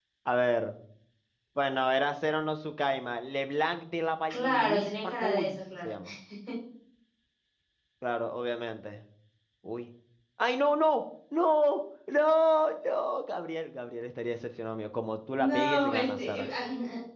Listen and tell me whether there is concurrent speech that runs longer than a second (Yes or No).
Yes